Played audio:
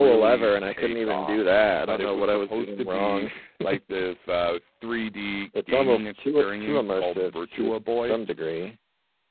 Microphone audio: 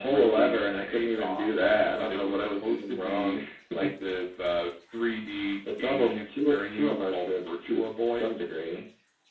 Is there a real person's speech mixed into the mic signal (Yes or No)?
No